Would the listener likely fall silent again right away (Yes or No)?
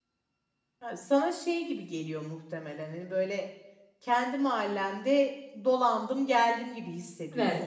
No